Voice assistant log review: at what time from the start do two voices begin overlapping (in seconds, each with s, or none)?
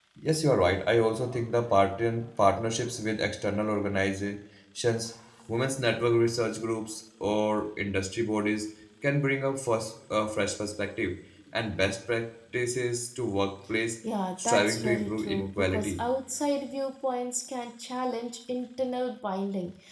14.5 s